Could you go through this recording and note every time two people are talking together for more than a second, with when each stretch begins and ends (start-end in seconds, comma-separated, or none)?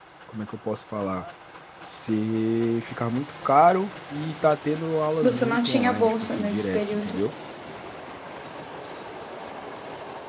5.2-7.2